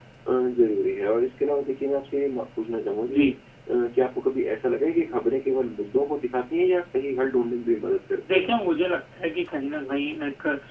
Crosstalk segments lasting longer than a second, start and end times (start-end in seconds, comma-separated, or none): none